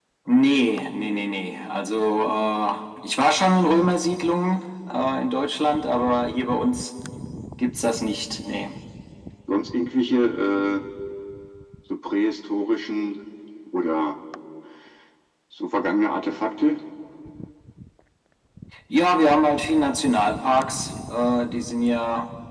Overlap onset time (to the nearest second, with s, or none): none